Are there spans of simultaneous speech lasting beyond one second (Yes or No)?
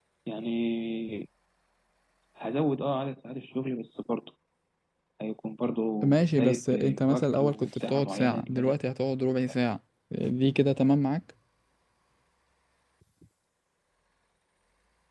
Yes